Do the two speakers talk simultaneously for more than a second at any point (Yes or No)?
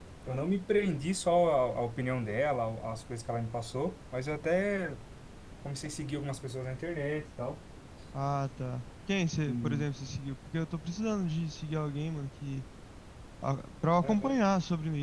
No